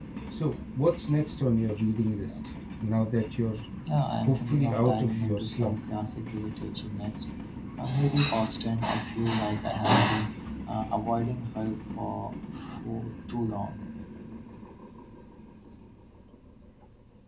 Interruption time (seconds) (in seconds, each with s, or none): 4.3 s